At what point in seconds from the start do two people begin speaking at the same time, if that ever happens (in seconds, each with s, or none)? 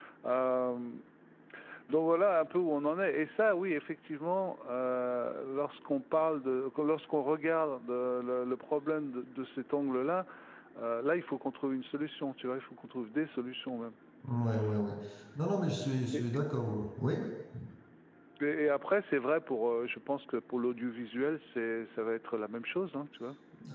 none